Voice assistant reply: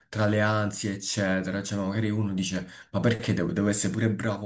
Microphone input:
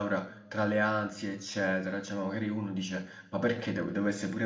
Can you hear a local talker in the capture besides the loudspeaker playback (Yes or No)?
No